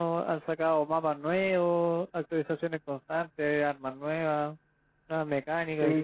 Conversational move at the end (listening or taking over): taking over